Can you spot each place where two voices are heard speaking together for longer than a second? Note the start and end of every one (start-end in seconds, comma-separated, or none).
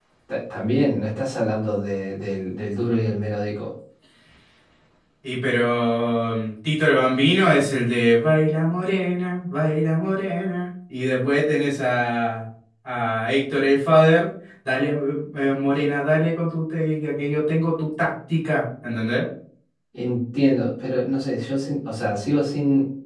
none